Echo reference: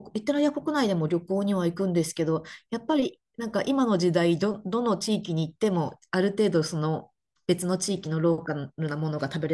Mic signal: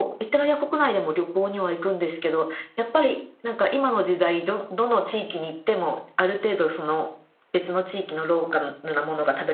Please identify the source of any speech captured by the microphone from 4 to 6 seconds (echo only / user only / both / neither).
echo only